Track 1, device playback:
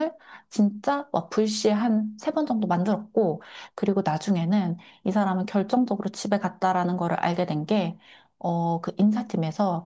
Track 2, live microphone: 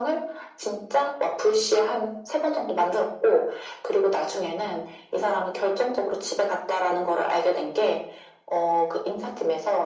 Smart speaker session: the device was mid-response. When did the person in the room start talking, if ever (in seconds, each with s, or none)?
none